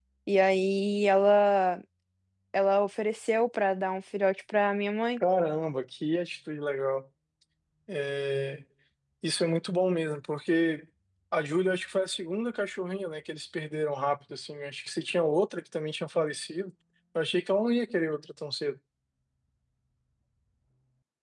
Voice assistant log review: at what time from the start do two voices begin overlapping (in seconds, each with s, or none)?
none